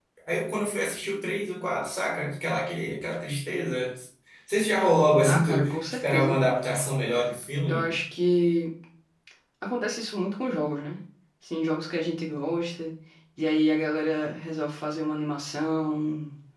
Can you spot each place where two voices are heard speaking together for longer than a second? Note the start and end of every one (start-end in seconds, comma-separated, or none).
5.2-6.5